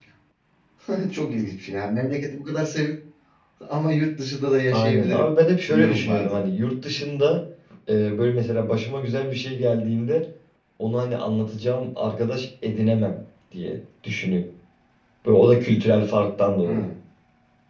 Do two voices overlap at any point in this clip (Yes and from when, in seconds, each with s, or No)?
Yes, from 4.7 s